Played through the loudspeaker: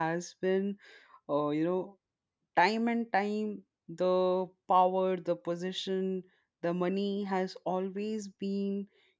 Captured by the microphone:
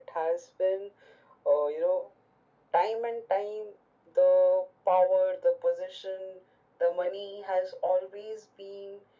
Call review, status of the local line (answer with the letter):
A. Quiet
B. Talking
A